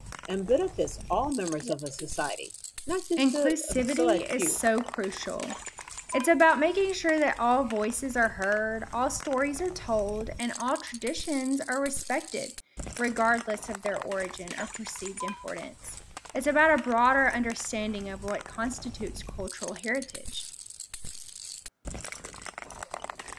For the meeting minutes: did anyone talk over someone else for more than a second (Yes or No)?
Yes